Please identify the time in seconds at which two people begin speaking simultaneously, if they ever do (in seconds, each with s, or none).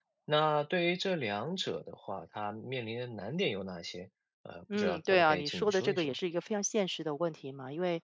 4.7 s